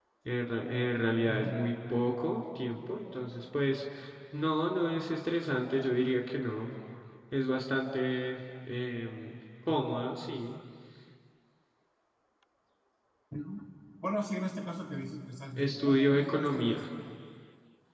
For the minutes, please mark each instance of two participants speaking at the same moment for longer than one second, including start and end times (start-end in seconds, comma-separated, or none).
15.6-16.8